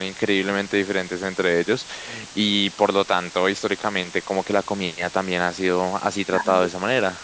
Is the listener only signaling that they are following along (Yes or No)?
Yes